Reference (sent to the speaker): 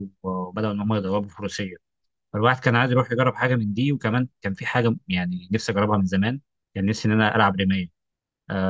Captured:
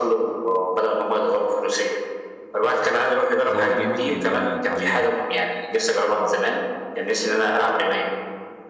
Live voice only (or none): زي الجيمنج ان انا اتعلمها